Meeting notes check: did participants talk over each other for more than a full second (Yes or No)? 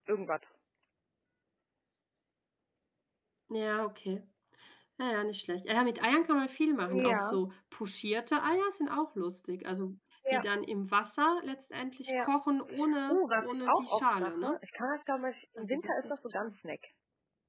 Yes